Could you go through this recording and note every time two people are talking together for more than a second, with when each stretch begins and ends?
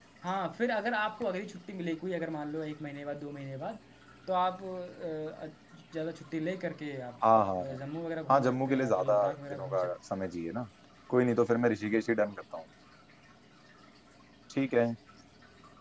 8.3-9.9

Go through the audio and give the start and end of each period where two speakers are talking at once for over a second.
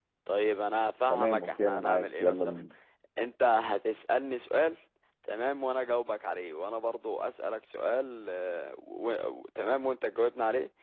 1.1-2.6

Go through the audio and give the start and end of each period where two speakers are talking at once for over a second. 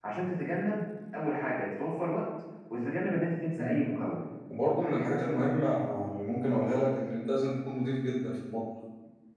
none

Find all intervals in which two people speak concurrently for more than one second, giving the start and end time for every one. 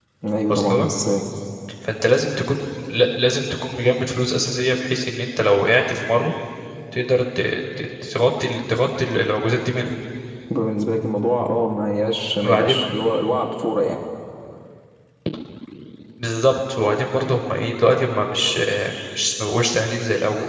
none

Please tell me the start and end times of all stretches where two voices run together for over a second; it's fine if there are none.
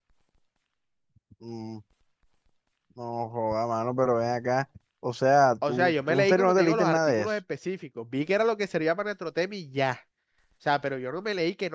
5.7-7.3

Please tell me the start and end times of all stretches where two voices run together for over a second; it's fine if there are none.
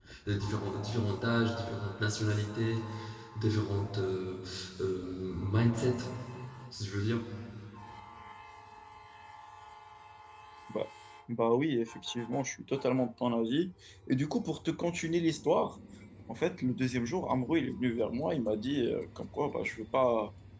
none

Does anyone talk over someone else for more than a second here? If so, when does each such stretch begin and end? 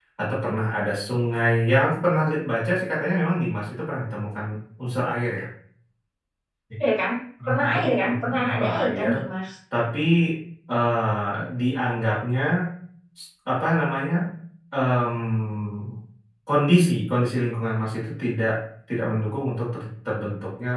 7.5-9.1

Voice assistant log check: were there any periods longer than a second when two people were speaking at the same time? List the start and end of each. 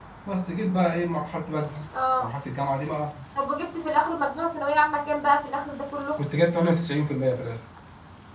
none

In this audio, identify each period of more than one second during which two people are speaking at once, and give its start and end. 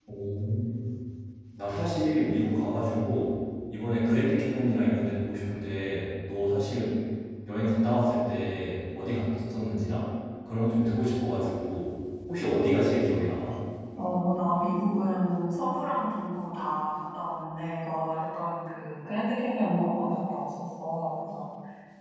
none

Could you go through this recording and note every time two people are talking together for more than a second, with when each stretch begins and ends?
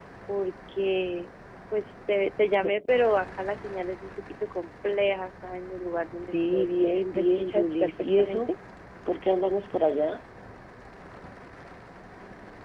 7.1-8.5

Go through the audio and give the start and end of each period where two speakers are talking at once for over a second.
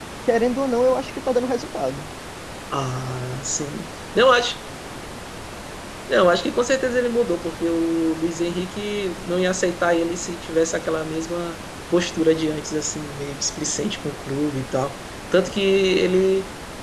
none

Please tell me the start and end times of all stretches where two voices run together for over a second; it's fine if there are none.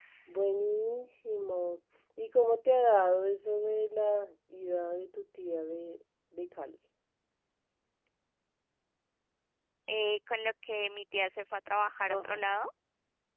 none

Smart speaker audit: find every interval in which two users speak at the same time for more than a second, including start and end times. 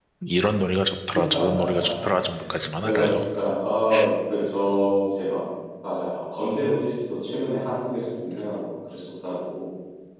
none

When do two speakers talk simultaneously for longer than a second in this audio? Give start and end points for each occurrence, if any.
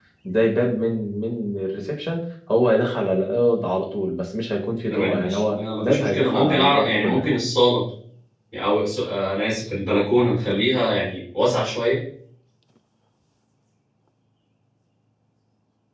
4.9-7.2

